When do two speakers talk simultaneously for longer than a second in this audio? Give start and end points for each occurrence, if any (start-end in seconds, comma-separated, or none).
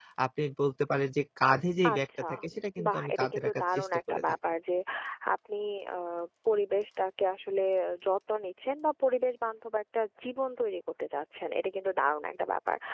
2.8-4.2